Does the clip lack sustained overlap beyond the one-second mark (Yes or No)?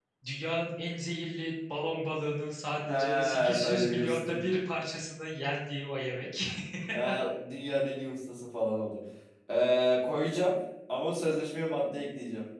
No